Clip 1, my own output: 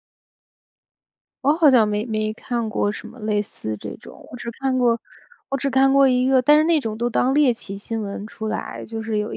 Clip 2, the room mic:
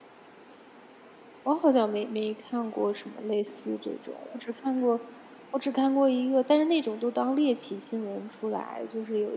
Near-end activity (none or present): none